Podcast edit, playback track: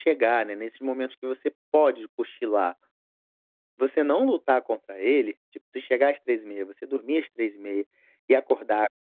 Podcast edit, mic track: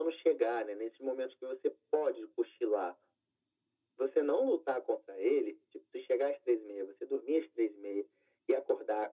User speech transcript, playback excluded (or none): none